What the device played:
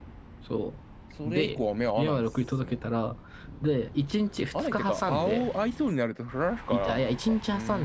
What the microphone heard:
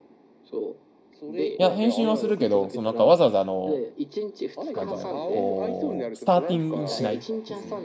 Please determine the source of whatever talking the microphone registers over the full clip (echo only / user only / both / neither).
both